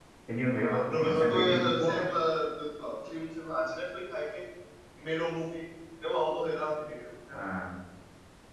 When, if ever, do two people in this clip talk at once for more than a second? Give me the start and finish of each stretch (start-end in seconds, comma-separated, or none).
0.6-2.0